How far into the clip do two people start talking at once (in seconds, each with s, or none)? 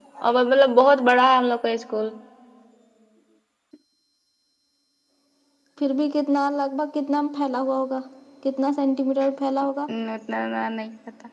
none